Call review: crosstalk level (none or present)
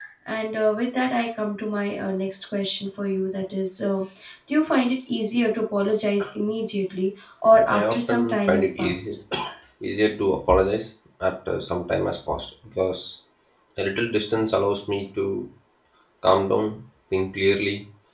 present